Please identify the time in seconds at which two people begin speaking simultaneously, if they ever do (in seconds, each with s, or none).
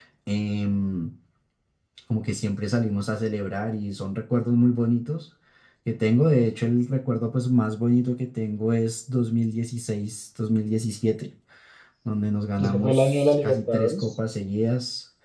12.6 s